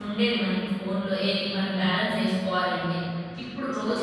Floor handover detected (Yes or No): No